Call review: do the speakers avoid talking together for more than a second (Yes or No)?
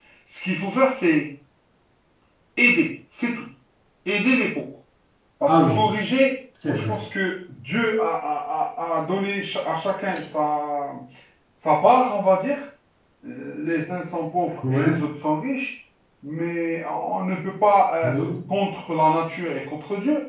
Yes